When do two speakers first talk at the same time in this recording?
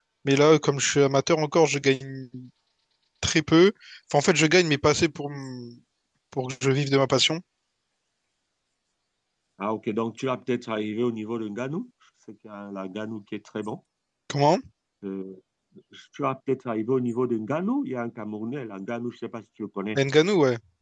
none

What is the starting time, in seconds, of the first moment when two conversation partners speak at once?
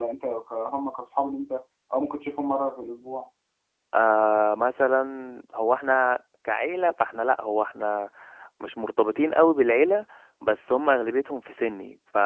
none

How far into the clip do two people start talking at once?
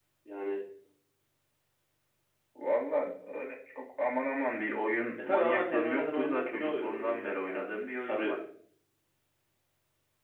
5 s

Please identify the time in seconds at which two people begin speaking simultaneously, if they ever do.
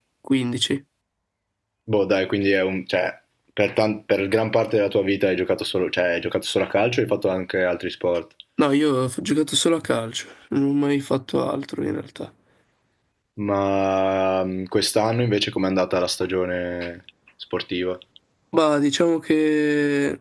none

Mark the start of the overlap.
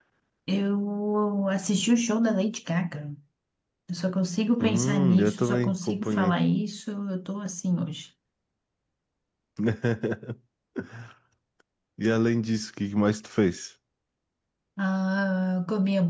5 s

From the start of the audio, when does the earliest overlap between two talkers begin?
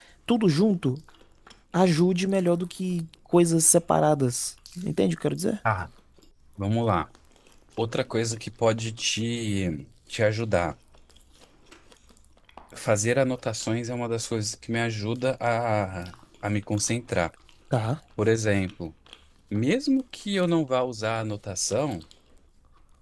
none

